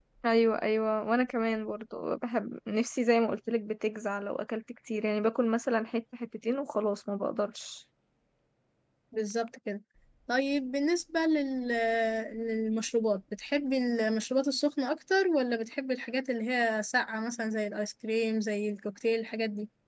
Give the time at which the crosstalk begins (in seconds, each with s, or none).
none